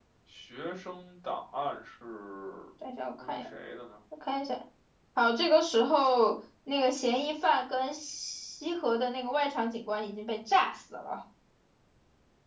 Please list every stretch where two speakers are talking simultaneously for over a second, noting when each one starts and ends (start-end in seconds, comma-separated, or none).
none